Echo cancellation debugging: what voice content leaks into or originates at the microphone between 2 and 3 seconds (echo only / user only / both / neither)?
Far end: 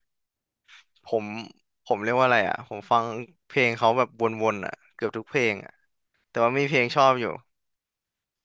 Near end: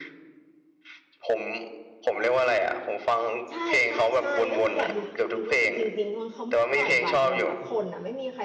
echo only